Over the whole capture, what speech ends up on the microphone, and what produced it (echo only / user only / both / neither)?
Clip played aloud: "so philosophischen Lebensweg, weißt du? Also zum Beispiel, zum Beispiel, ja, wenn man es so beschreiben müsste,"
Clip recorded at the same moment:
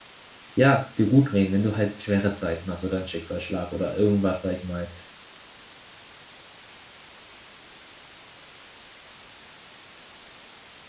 user only